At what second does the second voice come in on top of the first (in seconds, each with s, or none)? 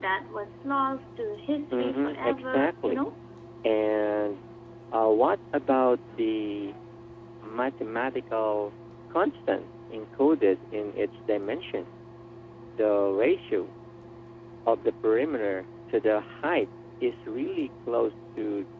1.7 s